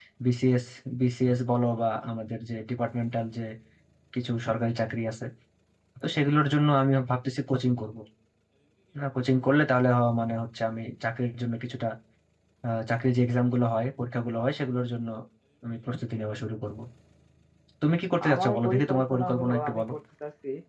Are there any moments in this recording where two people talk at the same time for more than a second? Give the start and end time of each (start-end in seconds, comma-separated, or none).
18.3-19.9